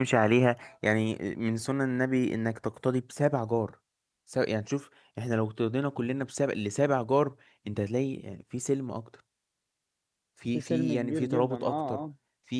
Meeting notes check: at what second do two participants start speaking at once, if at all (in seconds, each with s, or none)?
10.5 s